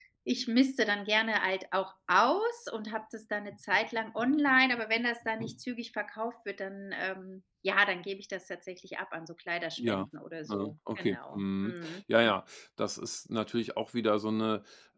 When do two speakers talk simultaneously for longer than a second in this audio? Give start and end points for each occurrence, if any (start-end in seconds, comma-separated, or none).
10.5-12.0